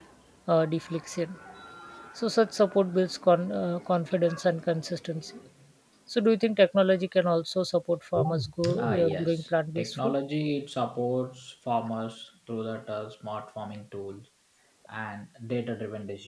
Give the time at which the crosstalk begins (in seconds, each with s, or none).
8.6 s